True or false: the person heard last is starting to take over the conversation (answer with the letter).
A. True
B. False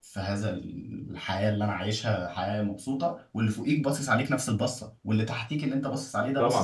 A